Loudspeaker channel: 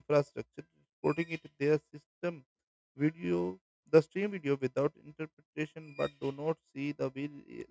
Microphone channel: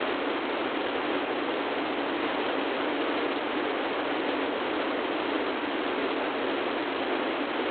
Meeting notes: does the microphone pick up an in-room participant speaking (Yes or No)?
No